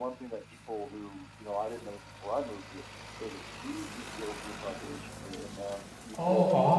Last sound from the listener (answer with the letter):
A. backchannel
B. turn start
A